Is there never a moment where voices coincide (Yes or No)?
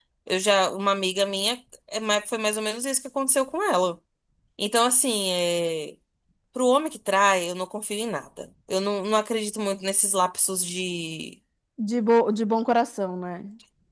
Yes